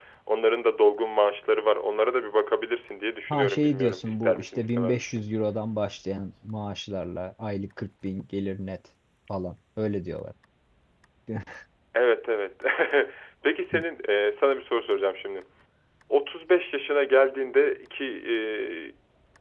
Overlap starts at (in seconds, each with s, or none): 3.3 s